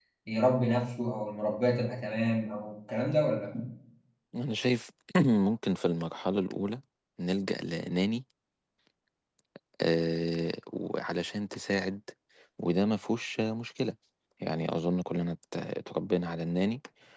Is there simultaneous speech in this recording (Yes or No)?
No